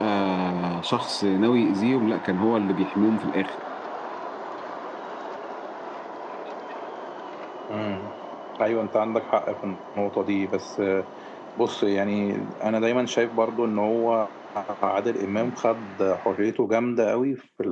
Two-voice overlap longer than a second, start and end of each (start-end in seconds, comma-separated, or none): none